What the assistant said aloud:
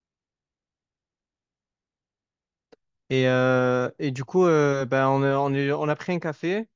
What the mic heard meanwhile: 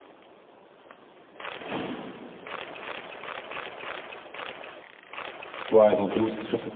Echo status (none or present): none